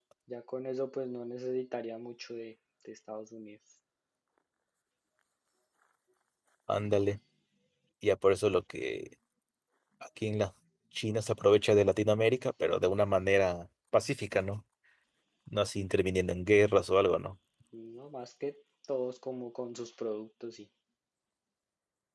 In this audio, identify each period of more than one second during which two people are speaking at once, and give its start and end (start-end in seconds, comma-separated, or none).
none